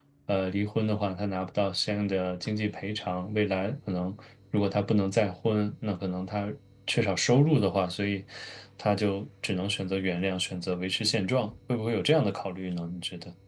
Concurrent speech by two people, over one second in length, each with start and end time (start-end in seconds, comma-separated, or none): none